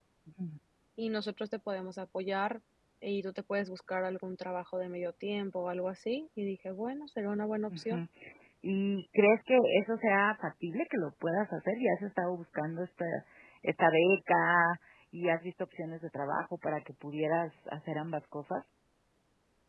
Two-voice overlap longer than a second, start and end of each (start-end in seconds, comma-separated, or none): none